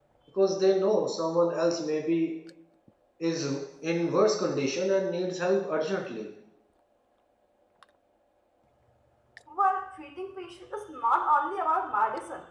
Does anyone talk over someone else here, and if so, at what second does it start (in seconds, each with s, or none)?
none